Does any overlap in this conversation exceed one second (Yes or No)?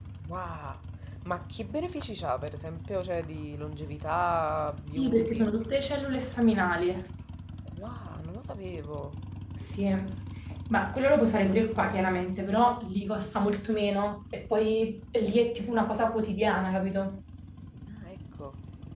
No